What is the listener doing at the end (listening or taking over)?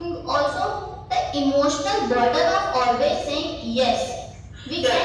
taking over